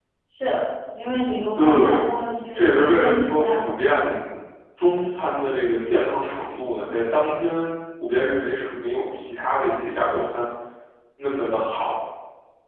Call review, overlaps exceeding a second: present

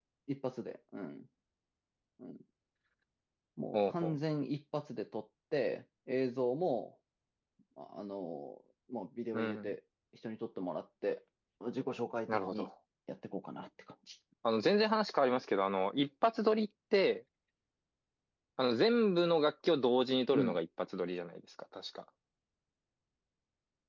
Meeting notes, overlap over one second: none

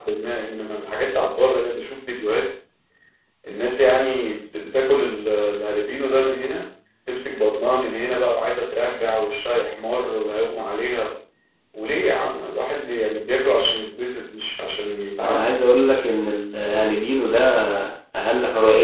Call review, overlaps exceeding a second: none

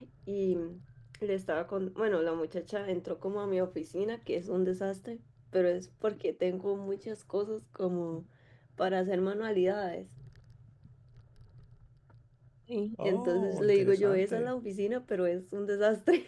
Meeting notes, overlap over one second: present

